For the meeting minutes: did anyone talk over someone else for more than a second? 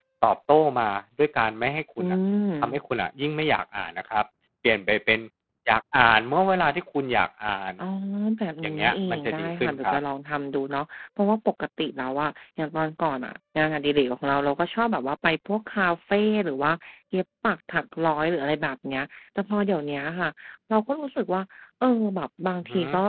Yes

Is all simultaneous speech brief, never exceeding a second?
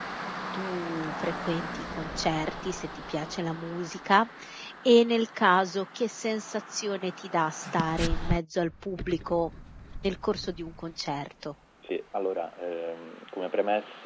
Yes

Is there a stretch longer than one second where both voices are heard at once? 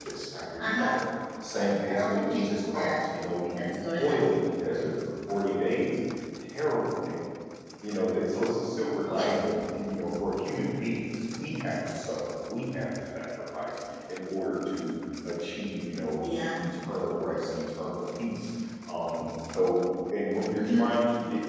Yes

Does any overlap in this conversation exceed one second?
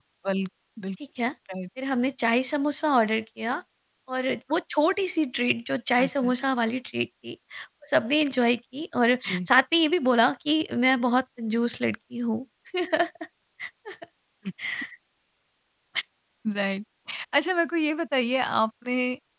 No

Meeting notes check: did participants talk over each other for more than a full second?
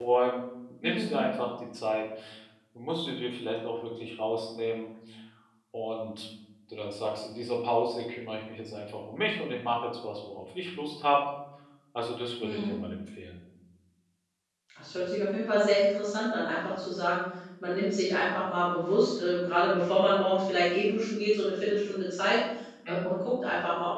No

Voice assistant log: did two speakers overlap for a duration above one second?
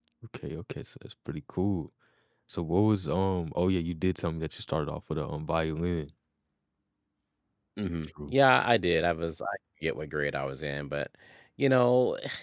No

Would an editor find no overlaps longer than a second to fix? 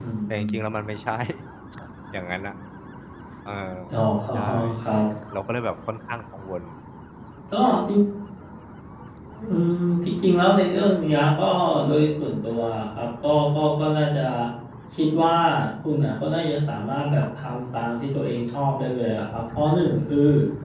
Yes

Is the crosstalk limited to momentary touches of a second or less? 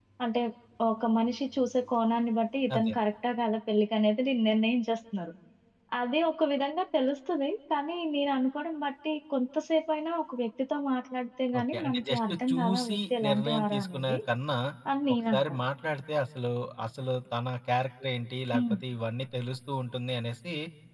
No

